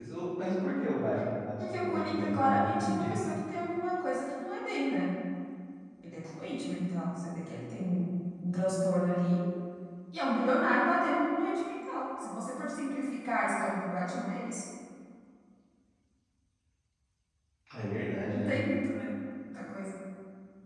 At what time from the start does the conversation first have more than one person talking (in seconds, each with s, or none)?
1.6 s